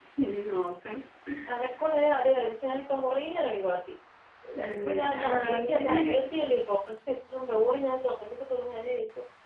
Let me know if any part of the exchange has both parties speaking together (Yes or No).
Yes